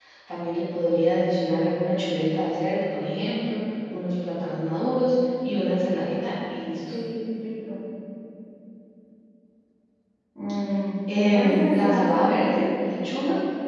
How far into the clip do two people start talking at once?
11.3 s

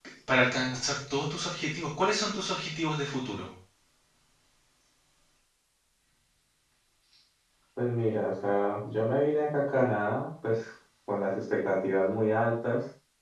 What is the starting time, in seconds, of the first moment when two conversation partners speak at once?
none

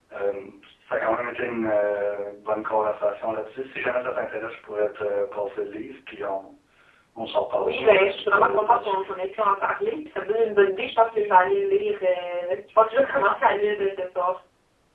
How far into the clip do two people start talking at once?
7.6 s

